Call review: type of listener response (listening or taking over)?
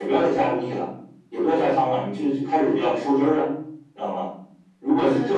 listening